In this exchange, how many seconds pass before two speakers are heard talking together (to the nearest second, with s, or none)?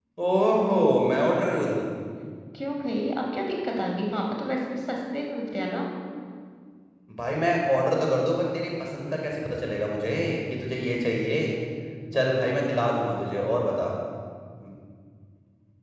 none